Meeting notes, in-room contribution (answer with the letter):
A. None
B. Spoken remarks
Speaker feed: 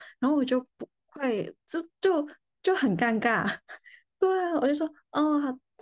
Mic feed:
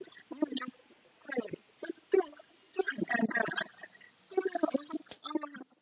A